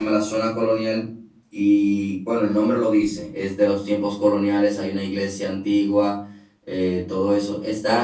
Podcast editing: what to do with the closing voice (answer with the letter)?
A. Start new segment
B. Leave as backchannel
B